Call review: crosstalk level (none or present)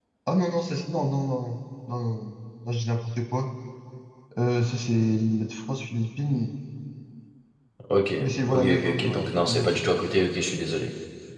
present